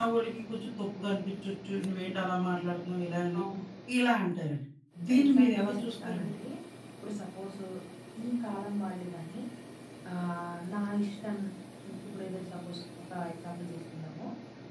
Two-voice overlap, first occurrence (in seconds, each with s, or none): 5.1 s